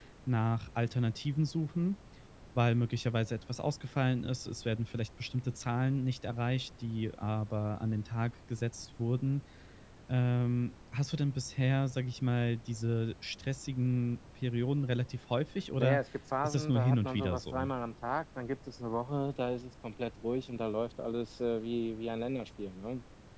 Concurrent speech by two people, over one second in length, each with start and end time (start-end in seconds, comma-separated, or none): 16.4-17.7